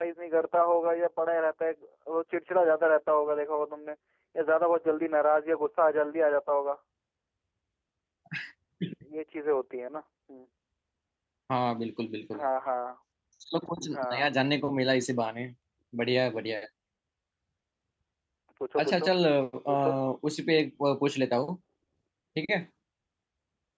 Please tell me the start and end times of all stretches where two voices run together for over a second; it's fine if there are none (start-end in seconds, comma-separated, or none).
none